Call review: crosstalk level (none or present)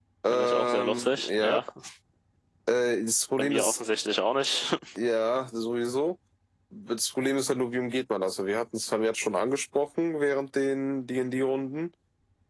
present